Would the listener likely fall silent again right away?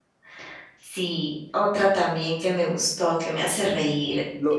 No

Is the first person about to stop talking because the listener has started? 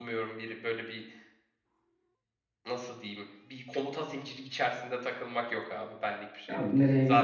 Yes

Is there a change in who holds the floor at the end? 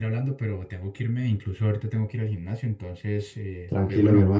Yes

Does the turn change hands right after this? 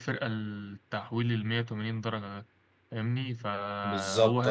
No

